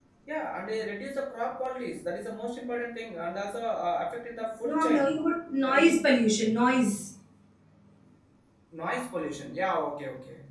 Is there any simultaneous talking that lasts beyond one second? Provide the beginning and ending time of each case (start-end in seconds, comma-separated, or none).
none